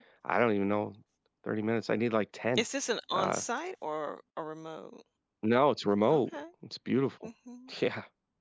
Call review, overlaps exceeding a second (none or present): none